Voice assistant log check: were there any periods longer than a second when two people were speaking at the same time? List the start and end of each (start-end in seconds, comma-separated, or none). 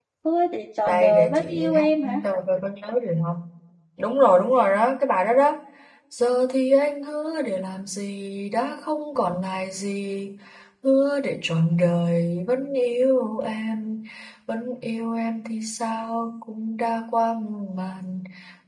0.9-2.1